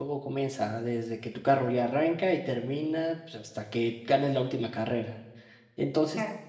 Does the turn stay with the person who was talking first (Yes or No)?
Yes